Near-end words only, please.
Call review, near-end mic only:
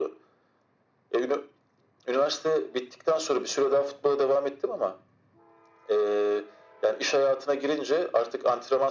none

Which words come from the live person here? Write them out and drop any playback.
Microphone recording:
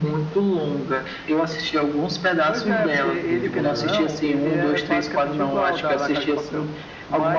demorou.

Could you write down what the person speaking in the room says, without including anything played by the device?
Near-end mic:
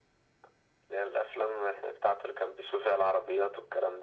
none

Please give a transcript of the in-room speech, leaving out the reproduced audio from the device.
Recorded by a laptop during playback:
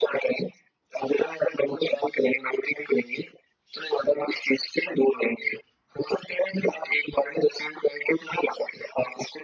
none

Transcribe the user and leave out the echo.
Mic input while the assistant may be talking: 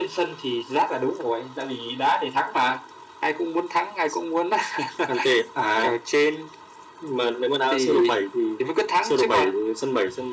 none

